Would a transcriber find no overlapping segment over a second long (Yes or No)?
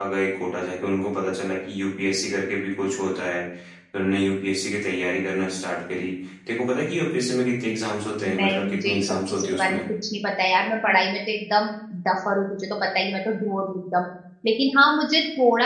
No